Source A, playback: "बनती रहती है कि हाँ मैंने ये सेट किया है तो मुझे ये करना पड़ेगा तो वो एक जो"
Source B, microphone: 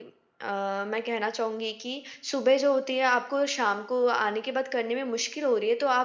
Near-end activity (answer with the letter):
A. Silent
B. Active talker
B